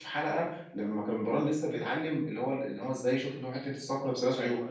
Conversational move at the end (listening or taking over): listening